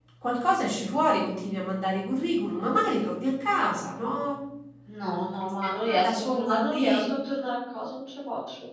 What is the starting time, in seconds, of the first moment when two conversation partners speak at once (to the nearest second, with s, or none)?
6 s